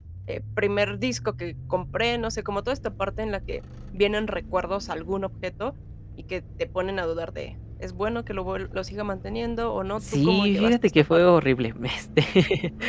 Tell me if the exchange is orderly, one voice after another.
No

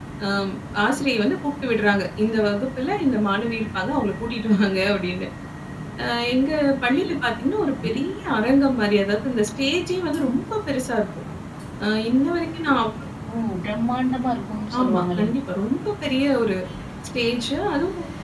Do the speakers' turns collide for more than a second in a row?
No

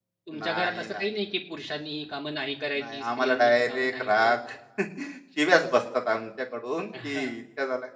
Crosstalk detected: Yes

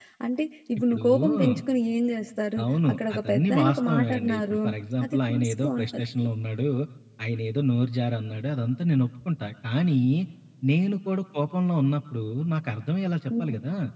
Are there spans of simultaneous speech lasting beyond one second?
Yes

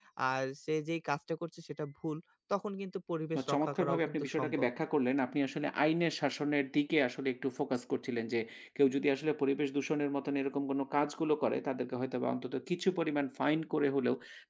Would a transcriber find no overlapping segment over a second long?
No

